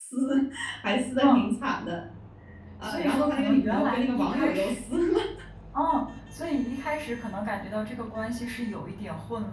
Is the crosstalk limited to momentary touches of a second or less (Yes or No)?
No